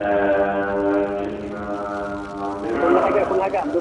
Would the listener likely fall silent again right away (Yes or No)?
No